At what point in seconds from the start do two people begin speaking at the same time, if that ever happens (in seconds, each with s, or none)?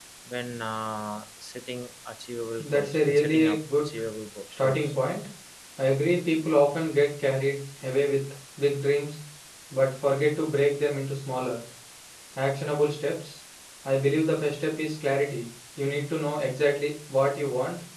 2.6 s